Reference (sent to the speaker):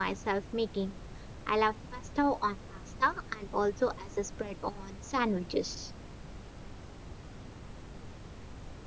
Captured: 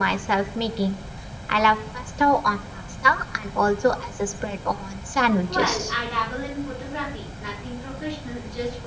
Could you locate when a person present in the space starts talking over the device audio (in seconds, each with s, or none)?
5.4 s